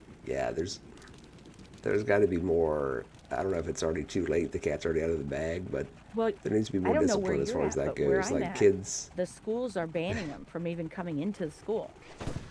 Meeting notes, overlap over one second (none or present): present